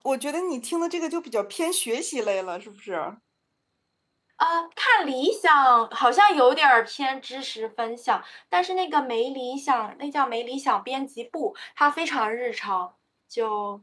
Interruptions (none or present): none